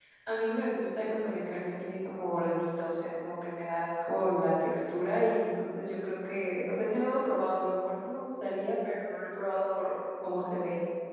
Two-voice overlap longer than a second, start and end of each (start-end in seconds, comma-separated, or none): none